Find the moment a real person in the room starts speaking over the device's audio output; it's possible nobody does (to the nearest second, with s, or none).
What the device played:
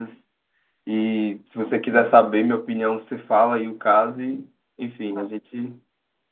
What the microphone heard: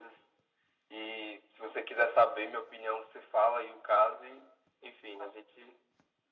none